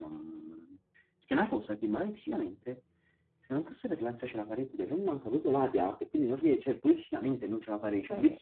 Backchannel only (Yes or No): No